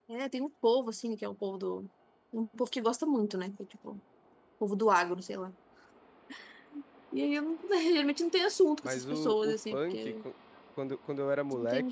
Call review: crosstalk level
present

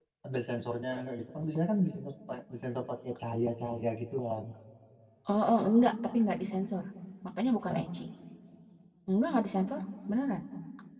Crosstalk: none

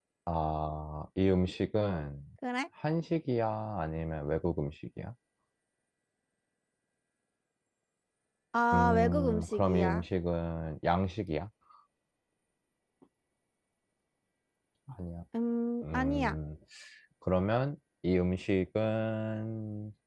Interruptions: present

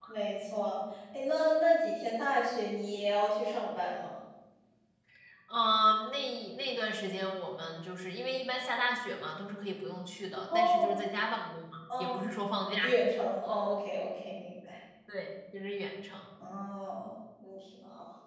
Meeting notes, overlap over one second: none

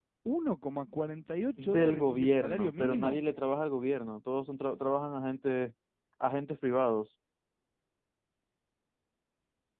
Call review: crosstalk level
present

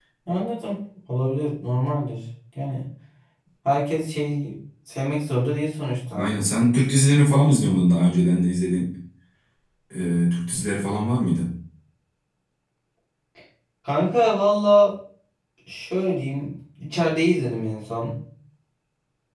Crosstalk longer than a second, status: none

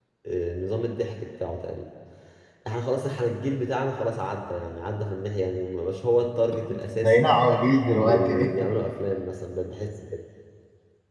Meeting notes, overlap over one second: none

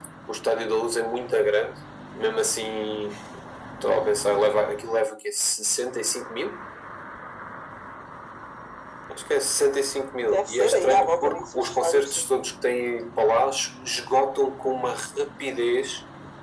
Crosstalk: present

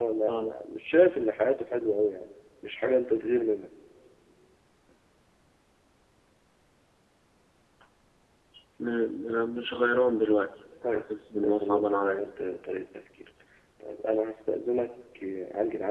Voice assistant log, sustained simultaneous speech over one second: present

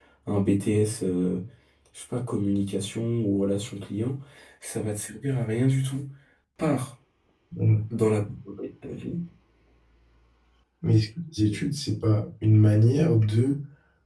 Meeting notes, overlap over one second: none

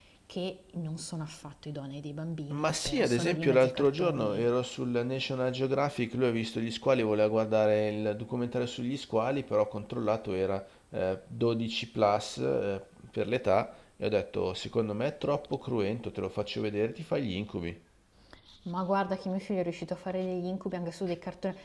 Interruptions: present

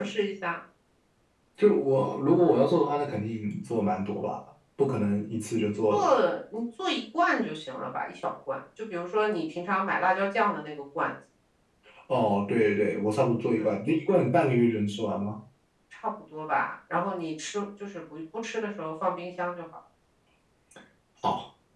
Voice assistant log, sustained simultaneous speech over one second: none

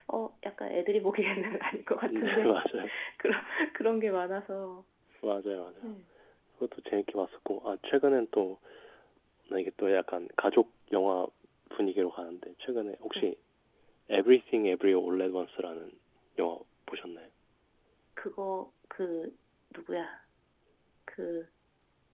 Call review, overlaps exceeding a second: none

